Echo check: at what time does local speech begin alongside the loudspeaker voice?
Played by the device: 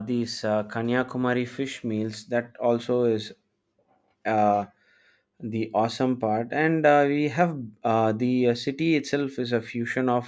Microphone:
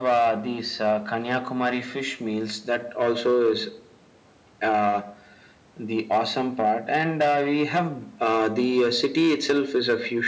none

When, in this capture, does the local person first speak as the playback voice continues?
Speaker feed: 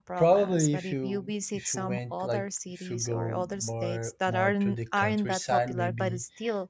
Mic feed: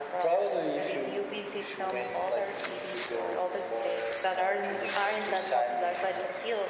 none

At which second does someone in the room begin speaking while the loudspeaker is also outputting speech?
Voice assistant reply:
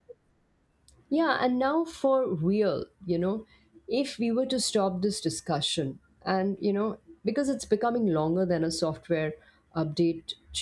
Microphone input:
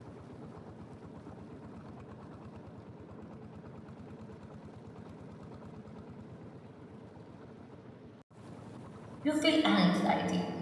9.2 s

